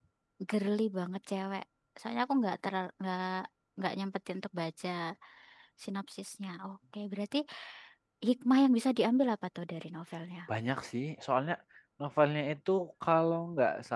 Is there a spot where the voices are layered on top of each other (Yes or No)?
No